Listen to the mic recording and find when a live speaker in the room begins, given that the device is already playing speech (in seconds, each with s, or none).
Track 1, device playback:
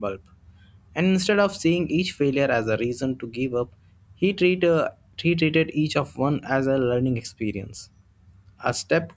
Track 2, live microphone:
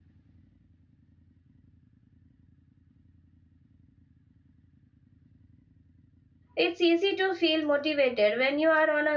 6.6 s